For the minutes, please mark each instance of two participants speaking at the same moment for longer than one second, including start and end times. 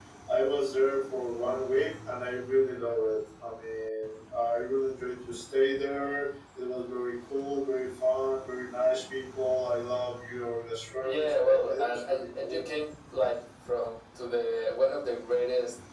11.0-12.6

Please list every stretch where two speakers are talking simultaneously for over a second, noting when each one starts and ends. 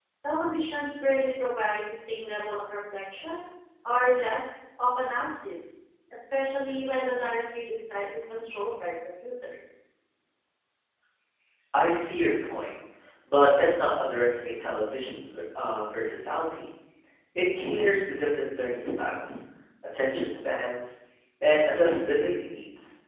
none

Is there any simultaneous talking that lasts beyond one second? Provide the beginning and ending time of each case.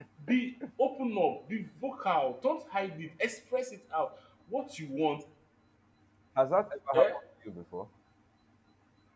none

